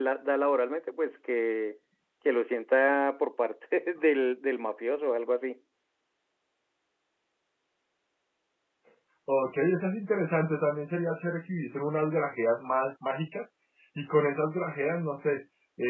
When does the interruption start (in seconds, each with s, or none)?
none